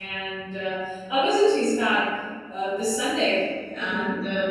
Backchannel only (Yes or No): Yes